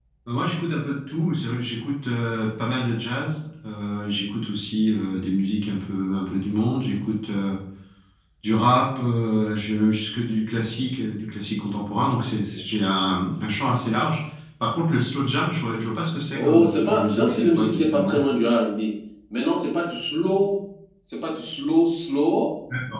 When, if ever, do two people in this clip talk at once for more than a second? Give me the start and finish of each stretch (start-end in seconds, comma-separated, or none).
16.3-18.2